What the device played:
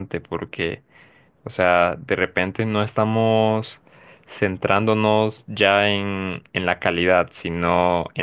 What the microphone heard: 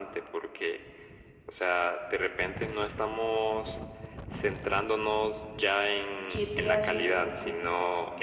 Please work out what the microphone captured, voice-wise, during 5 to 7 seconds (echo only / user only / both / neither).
both